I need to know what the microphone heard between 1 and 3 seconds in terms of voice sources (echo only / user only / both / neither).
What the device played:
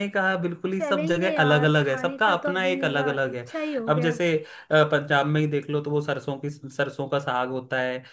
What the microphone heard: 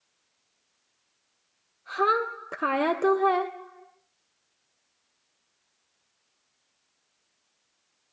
user only